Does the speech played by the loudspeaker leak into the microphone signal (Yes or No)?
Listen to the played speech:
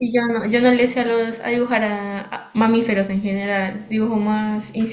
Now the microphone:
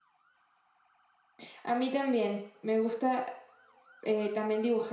No